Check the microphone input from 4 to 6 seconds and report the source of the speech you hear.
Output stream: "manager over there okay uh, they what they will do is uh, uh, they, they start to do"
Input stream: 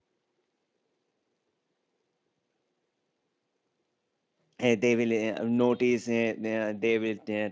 user only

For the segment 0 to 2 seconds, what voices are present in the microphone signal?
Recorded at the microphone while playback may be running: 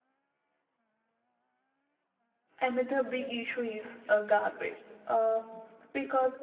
neither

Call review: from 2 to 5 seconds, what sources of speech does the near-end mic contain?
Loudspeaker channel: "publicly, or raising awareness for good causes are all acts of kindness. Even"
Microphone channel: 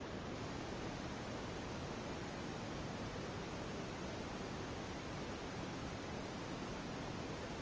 neither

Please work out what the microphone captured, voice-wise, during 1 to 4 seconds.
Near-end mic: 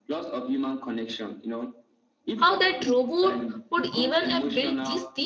both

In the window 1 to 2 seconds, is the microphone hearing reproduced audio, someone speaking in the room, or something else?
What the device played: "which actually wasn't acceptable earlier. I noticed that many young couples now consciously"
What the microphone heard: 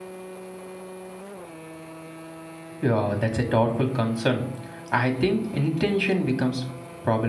neither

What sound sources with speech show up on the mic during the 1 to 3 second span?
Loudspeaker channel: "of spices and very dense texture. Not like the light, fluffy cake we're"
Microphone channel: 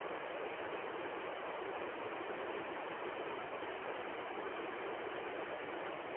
neither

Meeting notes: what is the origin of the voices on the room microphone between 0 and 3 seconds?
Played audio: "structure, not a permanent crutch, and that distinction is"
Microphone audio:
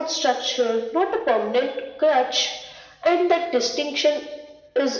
echo only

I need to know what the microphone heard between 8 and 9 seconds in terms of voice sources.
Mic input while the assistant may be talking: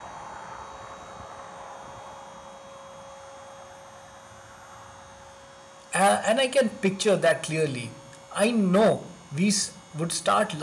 user only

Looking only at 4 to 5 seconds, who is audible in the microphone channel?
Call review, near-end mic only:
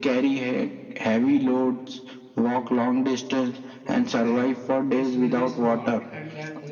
both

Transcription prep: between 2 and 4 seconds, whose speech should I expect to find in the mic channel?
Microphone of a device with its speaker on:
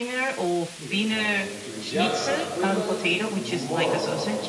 both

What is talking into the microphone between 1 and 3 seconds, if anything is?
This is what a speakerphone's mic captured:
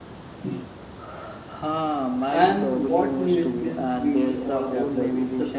both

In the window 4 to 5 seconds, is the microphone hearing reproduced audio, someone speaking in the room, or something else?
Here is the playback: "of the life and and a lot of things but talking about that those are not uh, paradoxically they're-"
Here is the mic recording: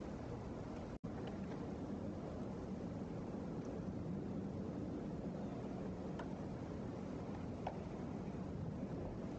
neither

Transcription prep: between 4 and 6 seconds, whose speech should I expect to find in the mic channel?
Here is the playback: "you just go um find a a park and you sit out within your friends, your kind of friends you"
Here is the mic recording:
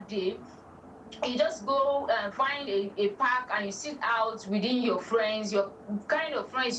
echo only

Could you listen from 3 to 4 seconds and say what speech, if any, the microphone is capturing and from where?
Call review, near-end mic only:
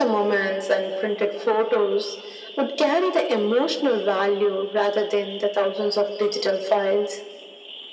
echo only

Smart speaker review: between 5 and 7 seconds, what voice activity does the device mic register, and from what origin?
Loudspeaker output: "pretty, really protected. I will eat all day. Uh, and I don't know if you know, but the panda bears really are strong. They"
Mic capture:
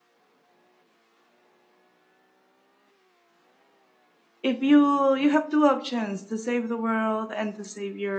user only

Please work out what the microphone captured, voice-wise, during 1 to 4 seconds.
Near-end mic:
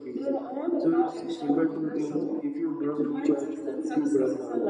echo only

